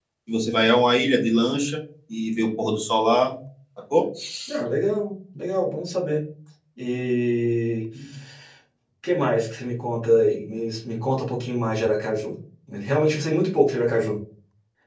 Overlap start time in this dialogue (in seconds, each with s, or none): none